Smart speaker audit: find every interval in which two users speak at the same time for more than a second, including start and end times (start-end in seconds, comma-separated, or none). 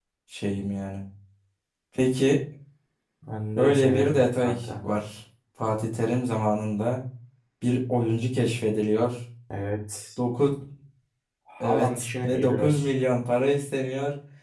3.6-4.8, 11.6-12.9